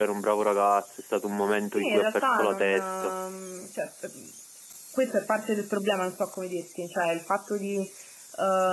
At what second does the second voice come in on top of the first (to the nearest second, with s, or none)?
2 s